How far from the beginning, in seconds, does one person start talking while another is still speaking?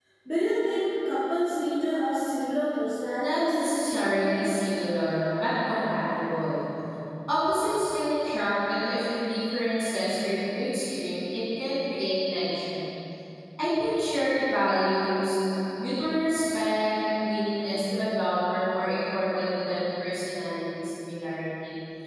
3 s

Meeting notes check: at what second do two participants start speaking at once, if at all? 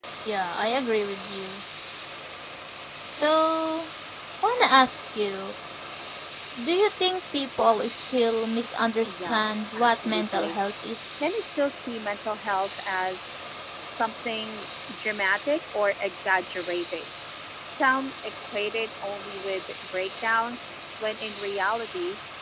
9 s

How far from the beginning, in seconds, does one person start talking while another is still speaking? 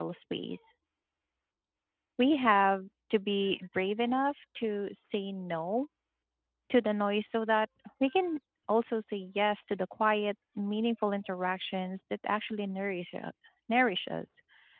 none

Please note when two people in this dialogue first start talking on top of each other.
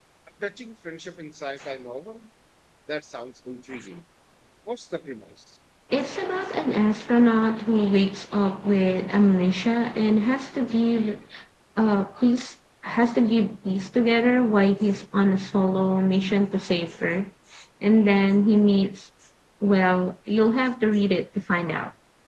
none

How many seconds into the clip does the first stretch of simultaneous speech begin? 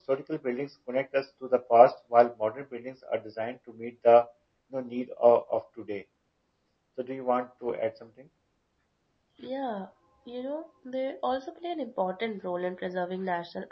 none

